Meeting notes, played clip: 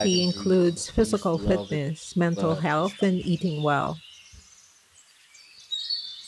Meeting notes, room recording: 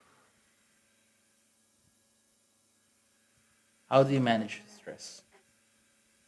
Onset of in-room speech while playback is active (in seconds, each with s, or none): 3.9 s